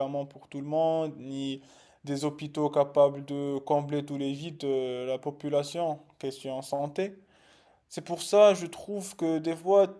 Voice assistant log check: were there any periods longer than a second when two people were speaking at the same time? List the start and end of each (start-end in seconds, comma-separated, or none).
none